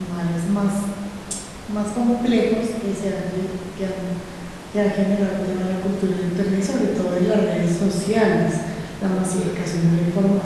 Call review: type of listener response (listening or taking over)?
listening